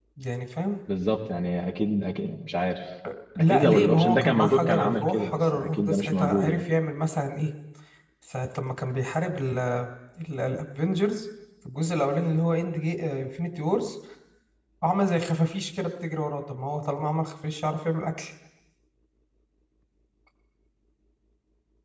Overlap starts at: 3.4 s

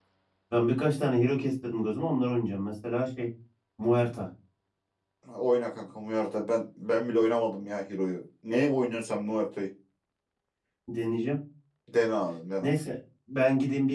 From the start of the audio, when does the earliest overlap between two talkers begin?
none

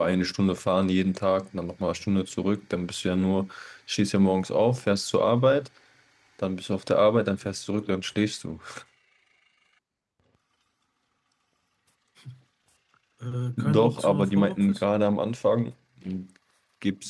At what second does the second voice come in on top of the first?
13.6 s

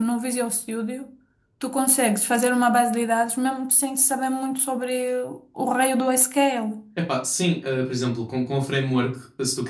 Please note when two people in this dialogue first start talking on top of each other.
none

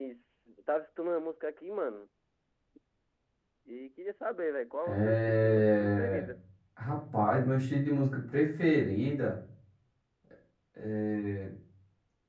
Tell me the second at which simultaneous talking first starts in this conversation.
4.8 s

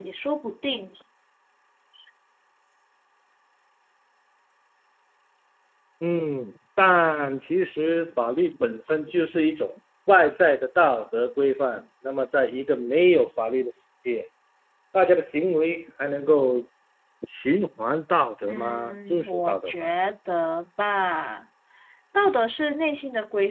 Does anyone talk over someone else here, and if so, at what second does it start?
18.5 s

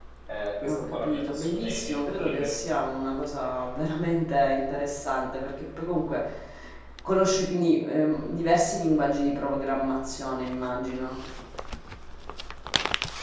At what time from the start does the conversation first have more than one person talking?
0.7 s

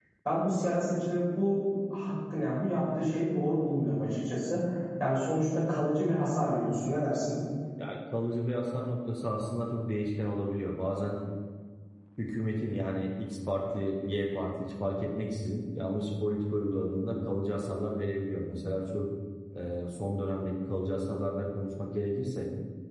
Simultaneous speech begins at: none

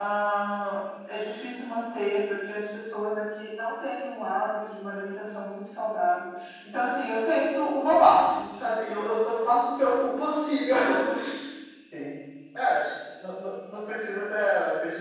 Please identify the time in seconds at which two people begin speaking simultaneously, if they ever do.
none

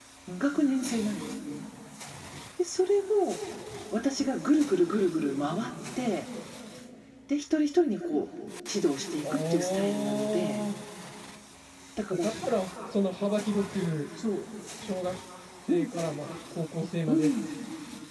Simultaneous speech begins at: 9.2 s

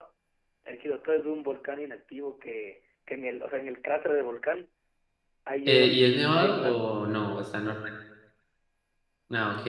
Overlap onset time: 5.7 s

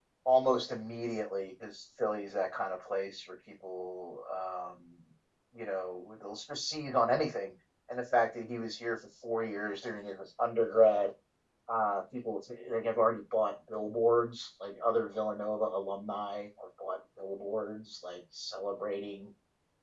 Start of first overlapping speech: none

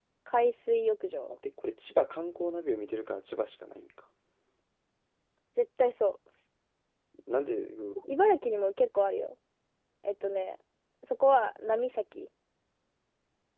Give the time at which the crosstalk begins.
none

